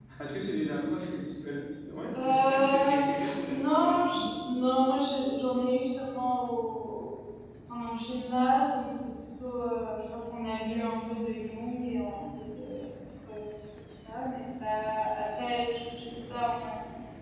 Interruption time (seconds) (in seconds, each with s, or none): 2.1 s